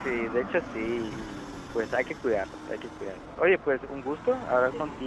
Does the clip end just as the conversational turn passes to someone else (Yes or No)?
No